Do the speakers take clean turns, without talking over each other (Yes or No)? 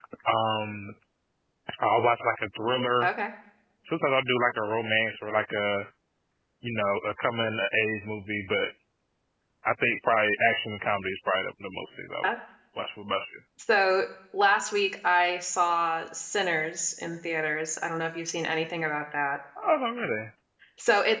Yes